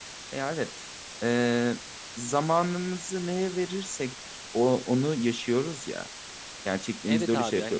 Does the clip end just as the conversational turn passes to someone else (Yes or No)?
Yes